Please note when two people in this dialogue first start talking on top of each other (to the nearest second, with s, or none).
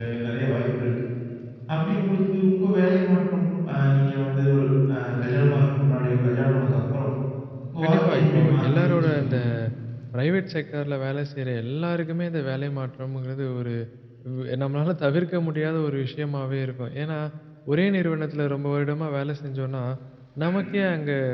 8 s